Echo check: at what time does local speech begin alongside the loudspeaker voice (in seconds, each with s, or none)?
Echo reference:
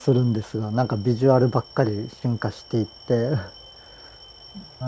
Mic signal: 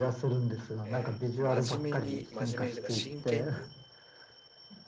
0.8 s